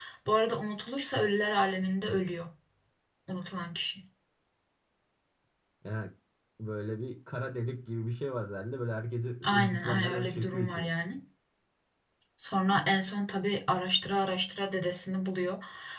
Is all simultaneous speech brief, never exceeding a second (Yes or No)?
No